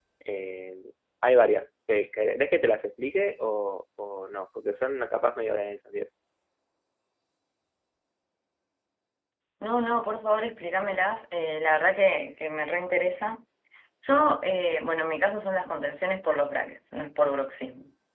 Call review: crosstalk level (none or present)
none